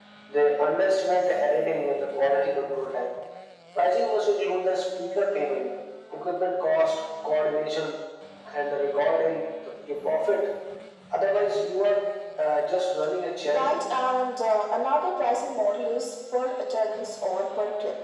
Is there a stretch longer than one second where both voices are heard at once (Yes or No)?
No